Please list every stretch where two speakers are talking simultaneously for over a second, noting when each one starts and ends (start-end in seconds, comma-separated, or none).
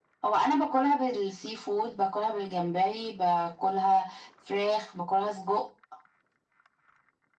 none